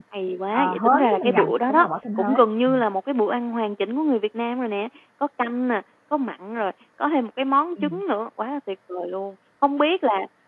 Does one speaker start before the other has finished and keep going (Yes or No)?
Yes